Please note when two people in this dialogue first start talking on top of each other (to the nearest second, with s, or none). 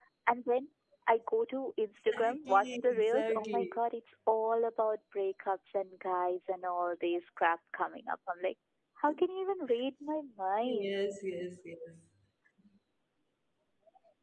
2 s